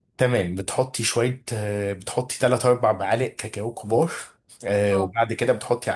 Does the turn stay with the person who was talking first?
Yes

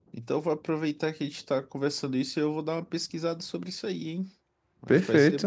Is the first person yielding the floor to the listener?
Yes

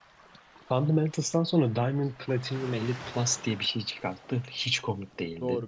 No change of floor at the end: No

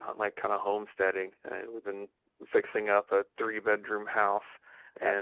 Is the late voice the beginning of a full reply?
No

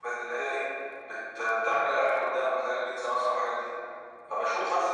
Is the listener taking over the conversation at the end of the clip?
No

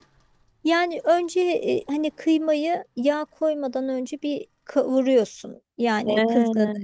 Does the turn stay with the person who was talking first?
Yes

